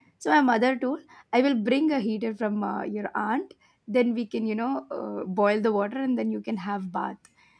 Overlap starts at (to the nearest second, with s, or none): none